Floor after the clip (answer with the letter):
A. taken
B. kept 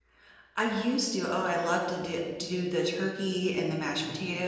B